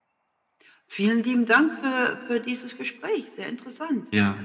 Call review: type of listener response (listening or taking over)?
taking over